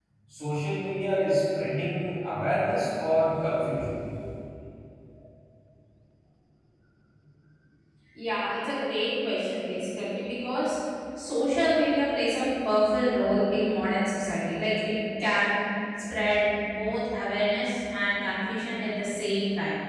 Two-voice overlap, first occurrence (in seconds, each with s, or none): none